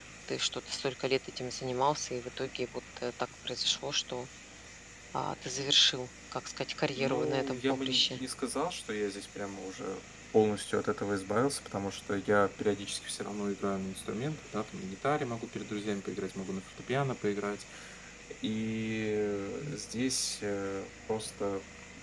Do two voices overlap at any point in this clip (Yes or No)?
Yes